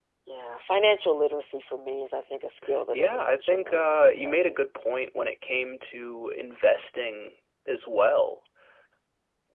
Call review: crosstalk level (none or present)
present